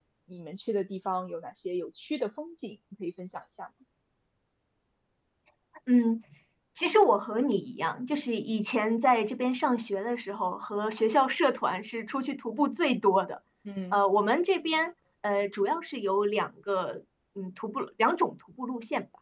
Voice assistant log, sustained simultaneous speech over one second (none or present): none